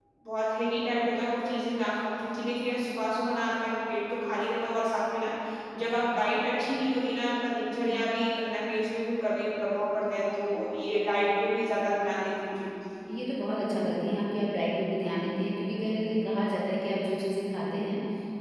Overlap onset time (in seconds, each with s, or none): none